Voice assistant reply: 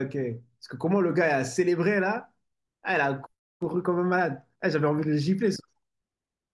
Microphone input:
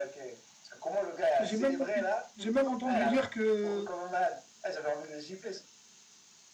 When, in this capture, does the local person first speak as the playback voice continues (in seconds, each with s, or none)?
1.4 s